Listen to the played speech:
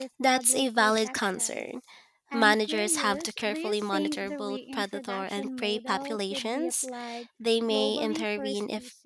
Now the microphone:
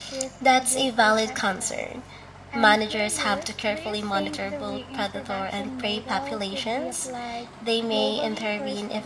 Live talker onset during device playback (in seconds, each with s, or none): none